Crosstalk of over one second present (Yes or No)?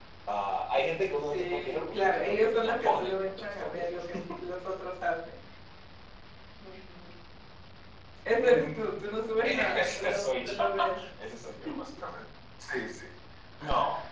Yes